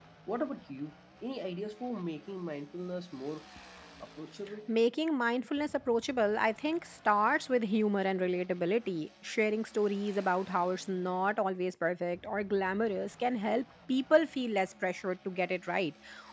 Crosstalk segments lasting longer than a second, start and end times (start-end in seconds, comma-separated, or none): none